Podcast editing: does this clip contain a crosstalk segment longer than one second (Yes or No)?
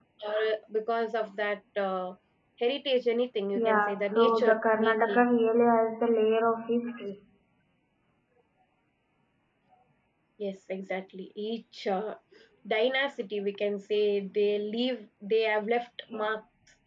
Yes